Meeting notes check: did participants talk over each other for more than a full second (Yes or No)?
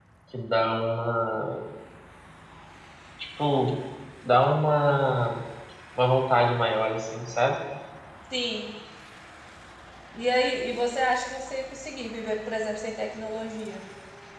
No